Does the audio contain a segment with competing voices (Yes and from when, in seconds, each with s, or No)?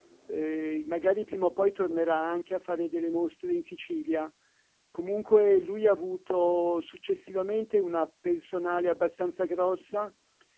No